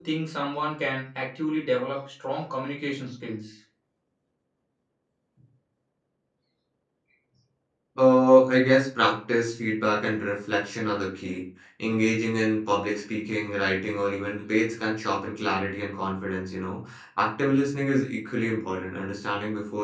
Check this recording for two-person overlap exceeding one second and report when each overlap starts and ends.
none

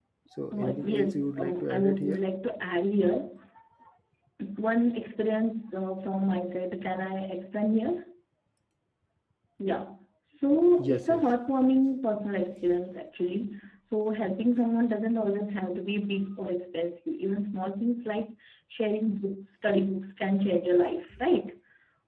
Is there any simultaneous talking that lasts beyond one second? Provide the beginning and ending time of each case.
0.5-2.2

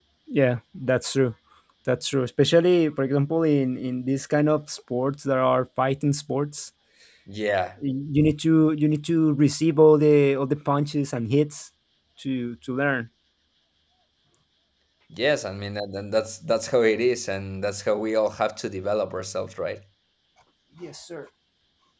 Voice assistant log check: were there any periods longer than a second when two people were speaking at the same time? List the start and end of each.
none

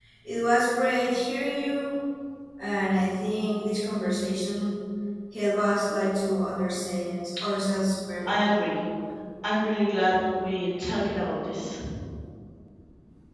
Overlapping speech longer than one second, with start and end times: none

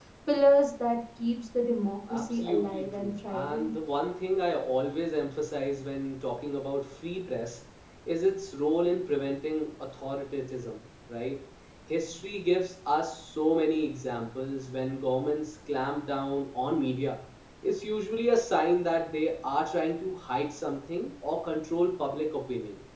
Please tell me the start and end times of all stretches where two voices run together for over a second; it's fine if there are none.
2.1-3.7

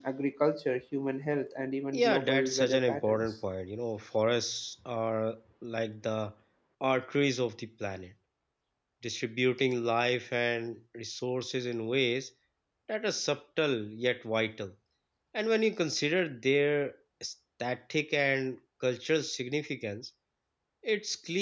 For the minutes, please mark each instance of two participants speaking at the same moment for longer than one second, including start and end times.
1.9-3.3

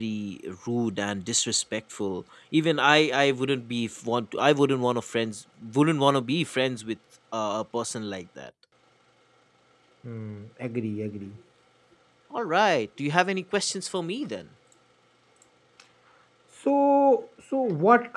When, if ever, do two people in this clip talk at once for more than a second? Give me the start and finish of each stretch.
none

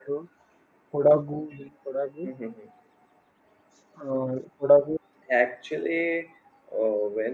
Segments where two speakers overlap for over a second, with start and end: none

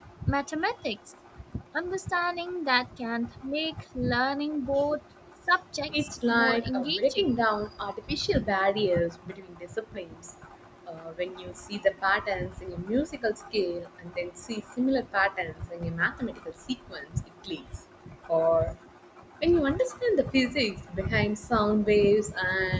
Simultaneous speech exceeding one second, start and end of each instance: 6.0-7.2

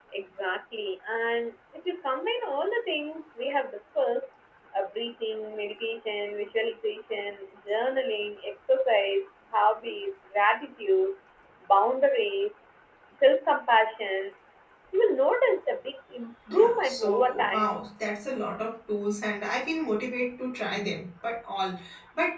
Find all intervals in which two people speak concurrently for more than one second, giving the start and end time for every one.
16.5-17.7

